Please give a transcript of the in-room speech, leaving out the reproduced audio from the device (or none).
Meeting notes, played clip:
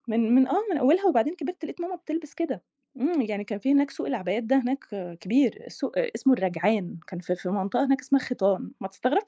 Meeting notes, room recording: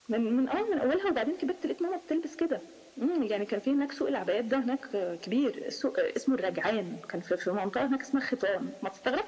none